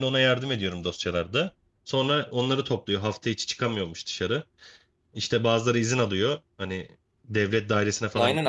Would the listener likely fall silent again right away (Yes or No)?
No